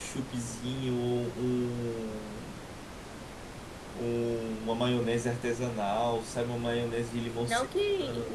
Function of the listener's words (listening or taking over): taking over